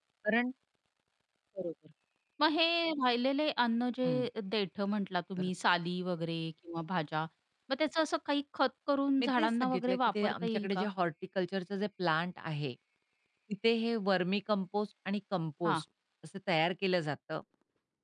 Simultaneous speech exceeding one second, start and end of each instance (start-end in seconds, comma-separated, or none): 9.2-10.8